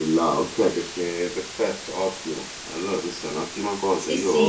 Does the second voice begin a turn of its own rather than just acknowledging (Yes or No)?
Yes